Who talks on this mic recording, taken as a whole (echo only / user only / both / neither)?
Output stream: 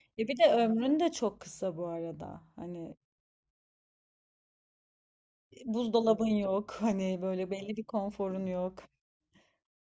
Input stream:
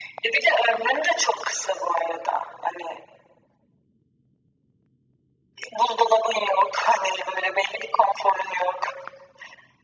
echo only